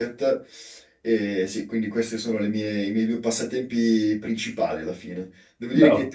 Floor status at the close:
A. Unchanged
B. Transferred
A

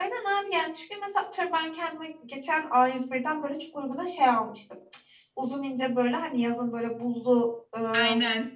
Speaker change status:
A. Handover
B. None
B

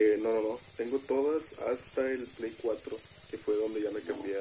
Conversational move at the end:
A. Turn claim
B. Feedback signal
B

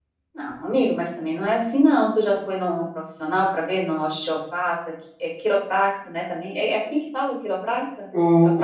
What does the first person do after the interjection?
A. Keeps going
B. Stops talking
B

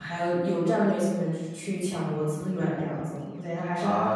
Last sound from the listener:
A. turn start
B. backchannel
A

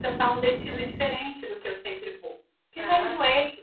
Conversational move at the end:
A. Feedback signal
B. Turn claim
A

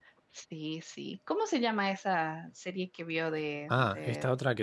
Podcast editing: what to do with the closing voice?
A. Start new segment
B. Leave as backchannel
A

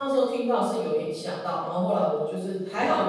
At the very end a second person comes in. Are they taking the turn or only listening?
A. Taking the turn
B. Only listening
B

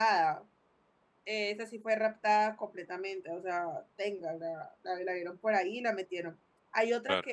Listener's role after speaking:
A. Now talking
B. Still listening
B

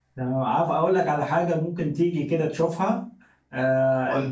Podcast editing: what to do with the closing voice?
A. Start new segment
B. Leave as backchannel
B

